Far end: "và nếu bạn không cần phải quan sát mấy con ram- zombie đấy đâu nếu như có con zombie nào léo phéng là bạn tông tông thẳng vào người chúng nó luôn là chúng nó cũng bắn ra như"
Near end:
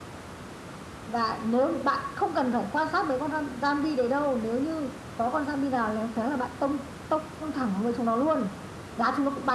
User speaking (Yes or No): No